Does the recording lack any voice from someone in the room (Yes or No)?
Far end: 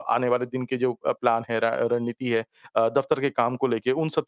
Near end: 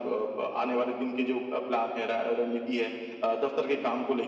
Yes